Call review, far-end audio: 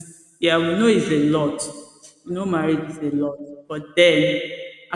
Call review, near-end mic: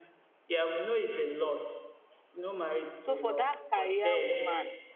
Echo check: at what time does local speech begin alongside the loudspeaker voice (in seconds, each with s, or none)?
3.0 s